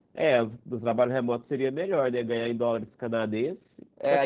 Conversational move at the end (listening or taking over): taking over